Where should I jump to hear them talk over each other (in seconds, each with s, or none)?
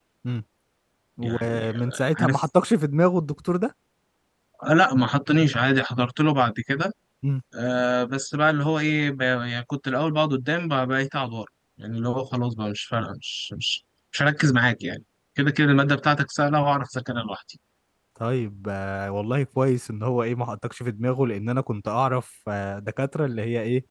1.2 s